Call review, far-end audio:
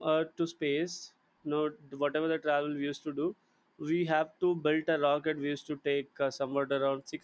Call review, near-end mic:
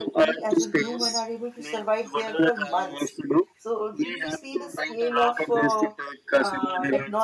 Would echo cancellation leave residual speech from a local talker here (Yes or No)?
Yes